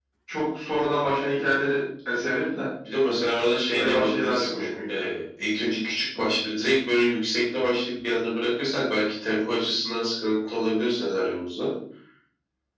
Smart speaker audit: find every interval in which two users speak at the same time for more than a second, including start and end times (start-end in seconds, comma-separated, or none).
3.7-5.0